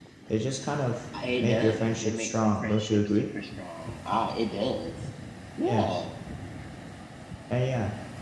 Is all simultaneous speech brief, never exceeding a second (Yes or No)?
No